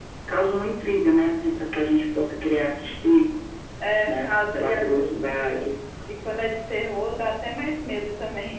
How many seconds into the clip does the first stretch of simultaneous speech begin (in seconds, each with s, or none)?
4.1 s